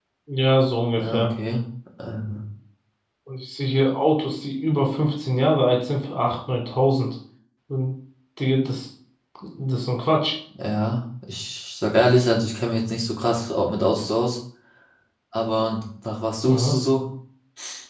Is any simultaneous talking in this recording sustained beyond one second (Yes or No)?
No